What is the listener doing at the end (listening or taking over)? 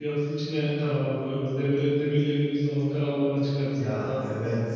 taking over